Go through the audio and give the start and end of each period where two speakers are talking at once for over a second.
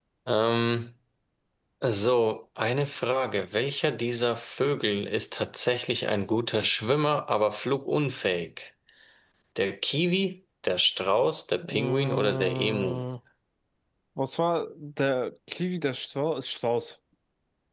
11.6-13.0

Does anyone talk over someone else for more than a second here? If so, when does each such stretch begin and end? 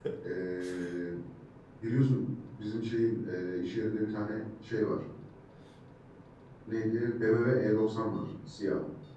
none

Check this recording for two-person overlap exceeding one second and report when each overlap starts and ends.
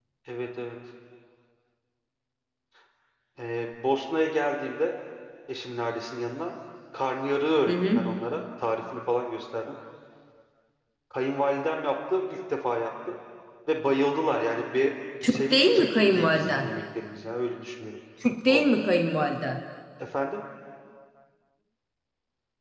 15.3-16.7

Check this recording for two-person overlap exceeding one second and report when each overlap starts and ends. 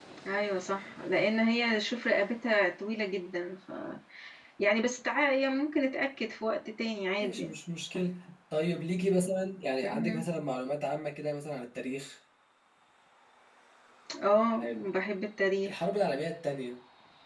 none

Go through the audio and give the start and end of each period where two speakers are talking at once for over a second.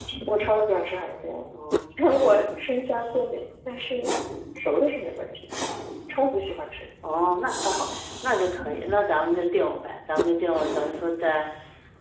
none

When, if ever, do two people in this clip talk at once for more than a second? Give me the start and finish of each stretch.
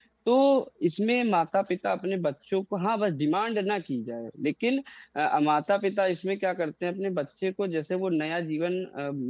none

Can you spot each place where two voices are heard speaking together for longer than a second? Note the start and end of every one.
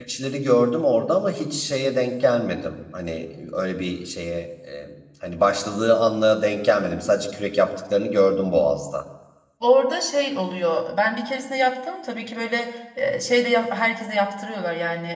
none

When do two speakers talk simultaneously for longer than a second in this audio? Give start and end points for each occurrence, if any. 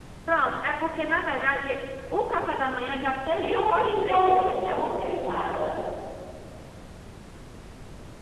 3.4-4.9

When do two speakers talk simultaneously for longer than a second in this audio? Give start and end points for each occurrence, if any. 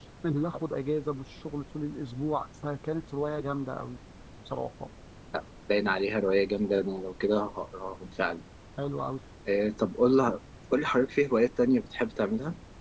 none

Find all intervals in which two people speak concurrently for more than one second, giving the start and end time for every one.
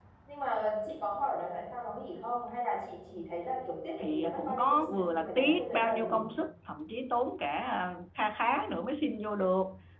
4.0-6.3

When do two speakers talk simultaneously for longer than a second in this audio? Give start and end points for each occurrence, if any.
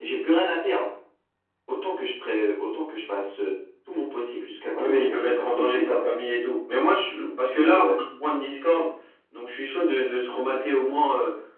4.8-6.0

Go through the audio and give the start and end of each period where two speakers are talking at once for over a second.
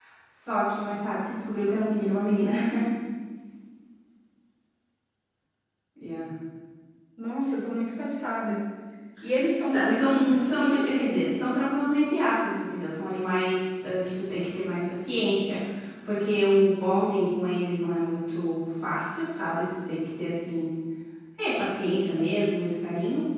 9.6-11.2

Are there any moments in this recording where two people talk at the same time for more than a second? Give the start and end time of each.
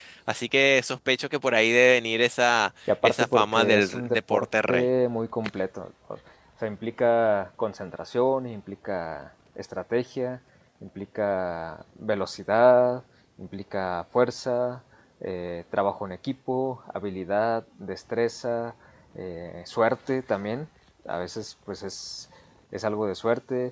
3.0-4.9

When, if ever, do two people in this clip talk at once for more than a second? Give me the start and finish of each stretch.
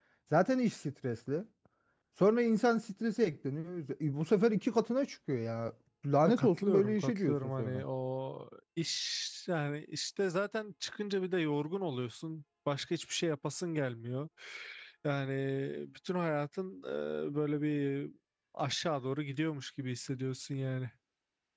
6.2-7.8

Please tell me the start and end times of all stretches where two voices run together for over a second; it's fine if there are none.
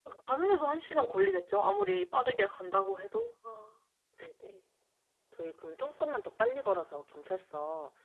none

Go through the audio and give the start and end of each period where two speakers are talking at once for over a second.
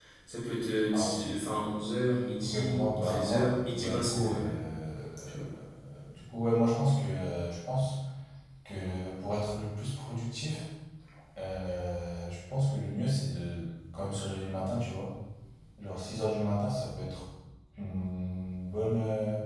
2.4-4.6

